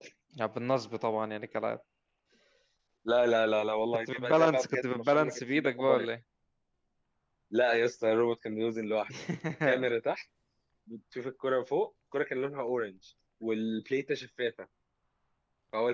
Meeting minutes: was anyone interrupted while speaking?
Yes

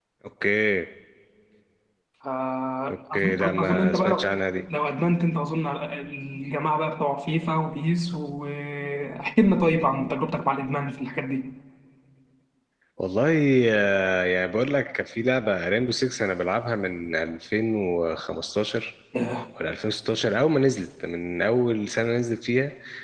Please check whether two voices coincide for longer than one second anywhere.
Yes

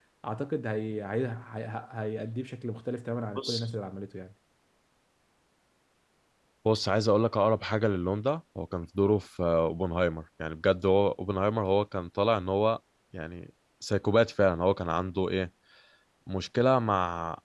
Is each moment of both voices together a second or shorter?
Yes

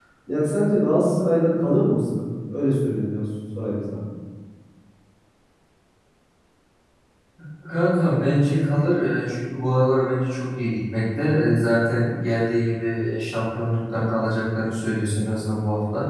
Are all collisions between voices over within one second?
Yes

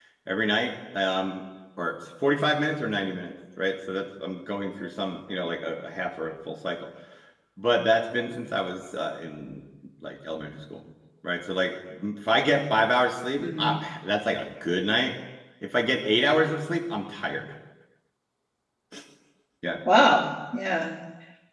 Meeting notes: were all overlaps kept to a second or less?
Yes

